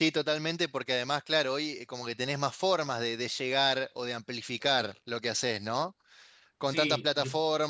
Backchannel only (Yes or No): Yes